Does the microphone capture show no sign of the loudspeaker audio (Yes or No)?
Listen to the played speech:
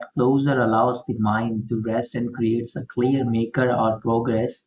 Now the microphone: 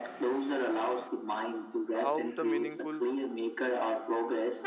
No